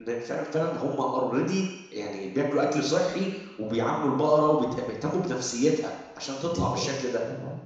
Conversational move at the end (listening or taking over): taking over